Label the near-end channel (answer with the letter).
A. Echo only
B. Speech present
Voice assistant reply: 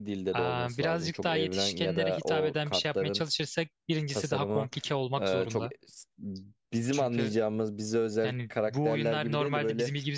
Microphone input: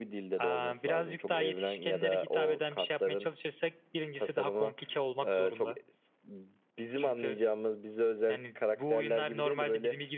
A